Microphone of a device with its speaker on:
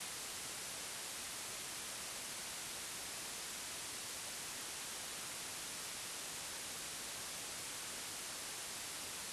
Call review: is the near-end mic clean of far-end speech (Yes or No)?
Yes